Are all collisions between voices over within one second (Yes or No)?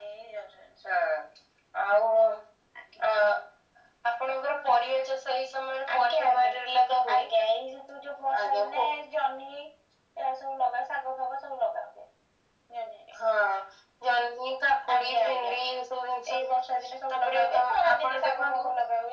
No